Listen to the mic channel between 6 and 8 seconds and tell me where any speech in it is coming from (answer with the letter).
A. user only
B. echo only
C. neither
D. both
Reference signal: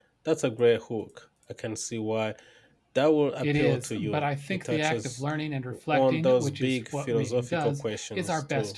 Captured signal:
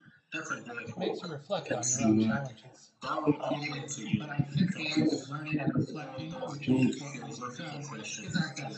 B